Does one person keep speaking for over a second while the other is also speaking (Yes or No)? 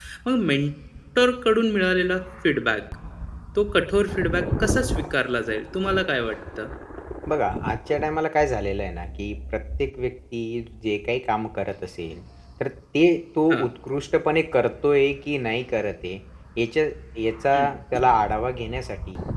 No